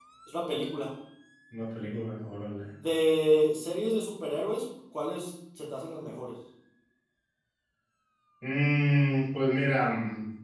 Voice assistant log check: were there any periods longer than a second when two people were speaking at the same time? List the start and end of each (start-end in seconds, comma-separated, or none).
none